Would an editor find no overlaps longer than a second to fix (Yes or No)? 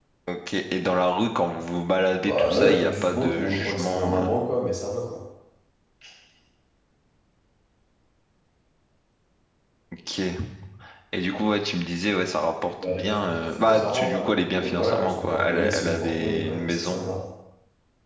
No